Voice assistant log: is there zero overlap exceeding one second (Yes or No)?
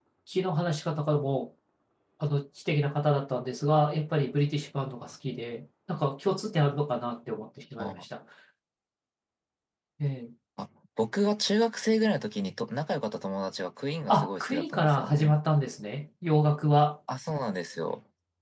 No